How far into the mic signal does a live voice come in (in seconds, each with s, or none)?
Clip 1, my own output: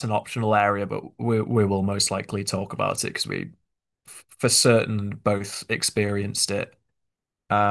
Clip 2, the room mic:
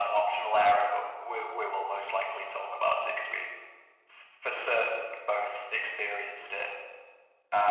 none